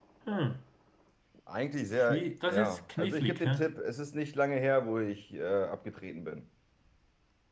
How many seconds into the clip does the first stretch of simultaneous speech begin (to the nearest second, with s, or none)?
2 s